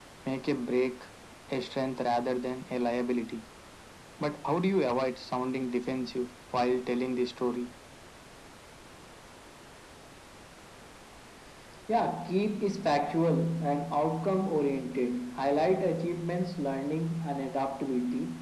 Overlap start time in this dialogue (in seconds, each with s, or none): none